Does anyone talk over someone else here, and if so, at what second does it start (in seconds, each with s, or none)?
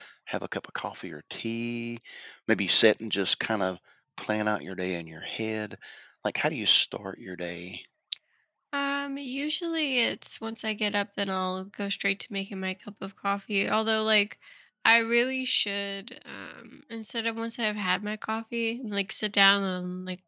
none